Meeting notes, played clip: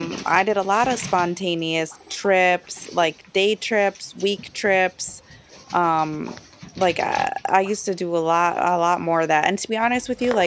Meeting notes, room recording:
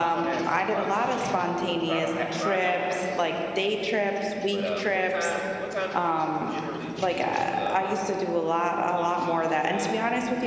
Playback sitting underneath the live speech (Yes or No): No